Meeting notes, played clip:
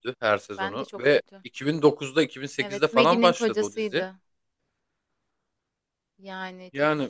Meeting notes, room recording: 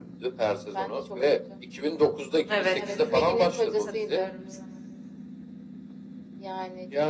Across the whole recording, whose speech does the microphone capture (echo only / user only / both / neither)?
both